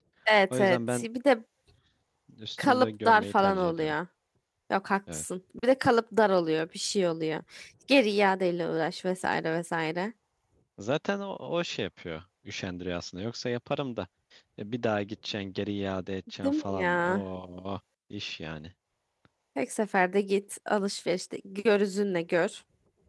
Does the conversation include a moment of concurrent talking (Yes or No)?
Yes